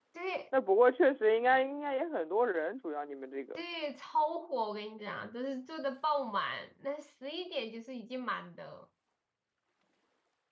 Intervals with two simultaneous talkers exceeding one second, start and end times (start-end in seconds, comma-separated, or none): none